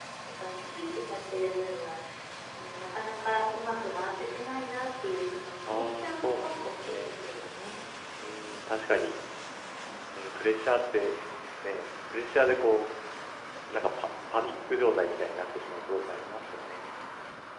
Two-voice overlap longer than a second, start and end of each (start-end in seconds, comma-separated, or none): 5.6-7.4